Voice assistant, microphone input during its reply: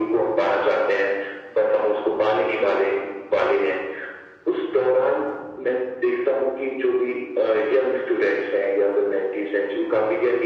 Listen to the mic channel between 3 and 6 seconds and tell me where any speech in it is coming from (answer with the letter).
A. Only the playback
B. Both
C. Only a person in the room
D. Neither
A